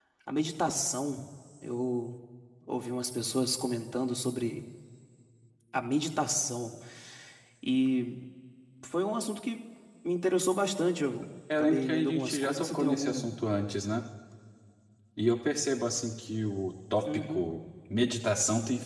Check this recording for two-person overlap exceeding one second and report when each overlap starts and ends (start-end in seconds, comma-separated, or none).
11.6-13.3